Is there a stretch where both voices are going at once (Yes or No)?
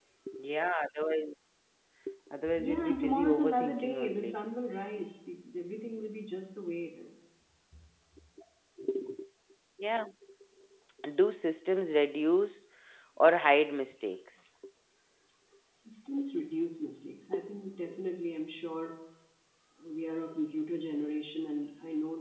Yes